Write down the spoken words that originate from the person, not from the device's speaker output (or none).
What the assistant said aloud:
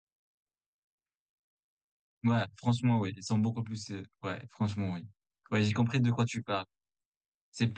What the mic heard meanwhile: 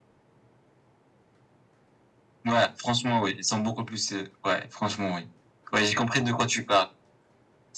none